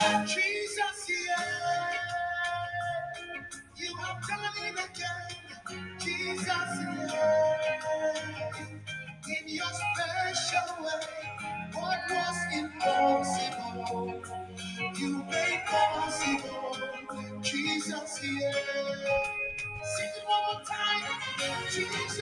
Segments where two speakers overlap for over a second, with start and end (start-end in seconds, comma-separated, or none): none